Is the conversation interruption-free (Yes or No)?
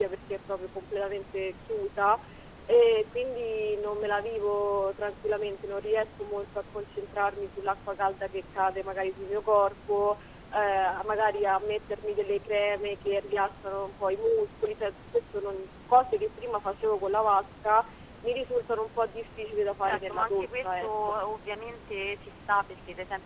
No